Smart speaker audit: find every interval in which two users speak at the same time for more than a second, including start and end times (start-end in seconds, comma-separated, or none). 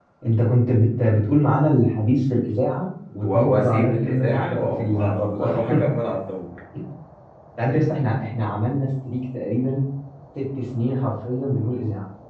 3.2-5.8